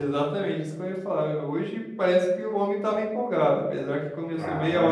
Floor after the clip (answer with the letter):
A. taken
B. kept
B